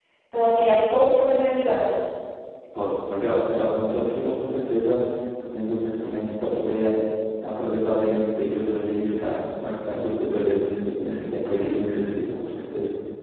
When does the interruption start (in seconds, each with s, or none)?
none